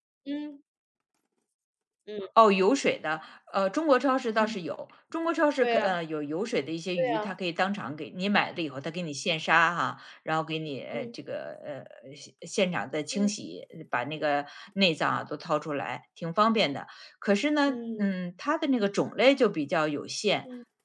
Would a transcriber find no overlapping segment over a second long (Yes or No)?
Yes